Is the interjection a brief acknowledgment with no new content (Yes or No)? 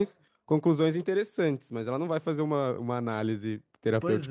No